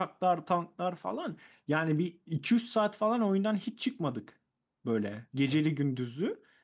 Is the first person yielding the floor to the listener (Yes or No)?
No